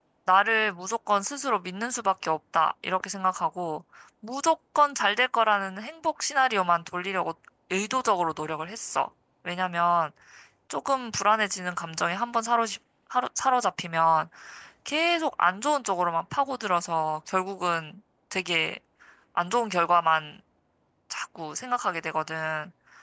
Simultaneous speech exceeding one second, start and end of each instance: none

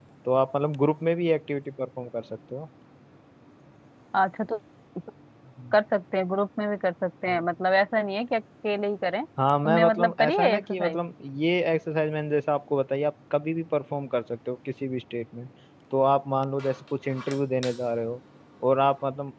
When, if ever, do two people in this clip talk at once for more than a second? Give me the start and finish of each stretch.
9.6-11.0

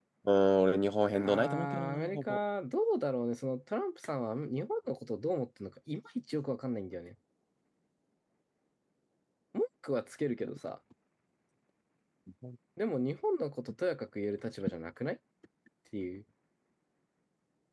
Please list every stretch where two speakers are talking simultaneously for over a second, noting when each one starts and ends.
1.1-2.4

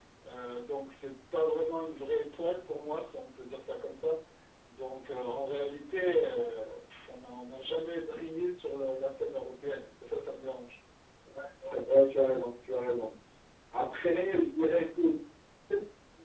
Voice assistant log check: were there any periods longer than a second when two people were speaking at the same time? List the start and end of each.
none

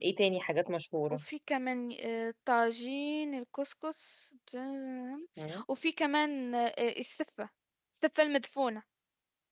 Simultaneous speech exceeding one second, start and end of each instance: none

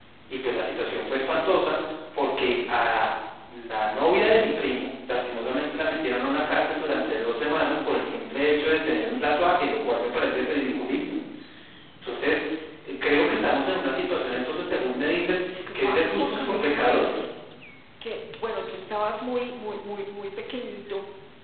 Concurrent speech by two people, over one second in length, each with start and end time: 15.8-17.2

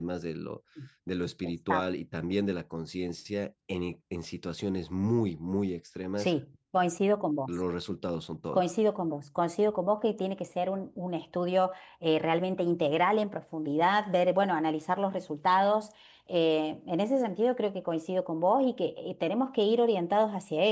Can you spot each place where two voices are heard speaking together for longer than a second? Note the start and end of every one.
none

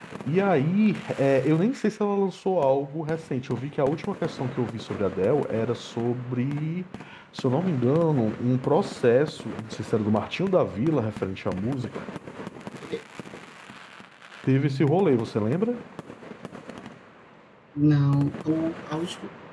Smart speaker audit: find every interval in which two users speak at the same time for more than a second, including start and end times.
none

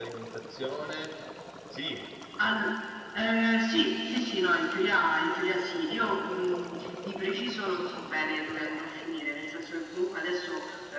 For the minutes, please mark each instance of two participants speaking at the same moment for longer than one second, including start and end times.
none

